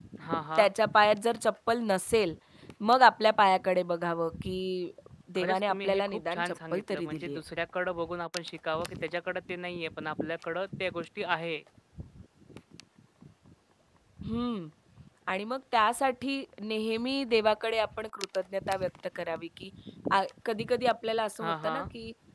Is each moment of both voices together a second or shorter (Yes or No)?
No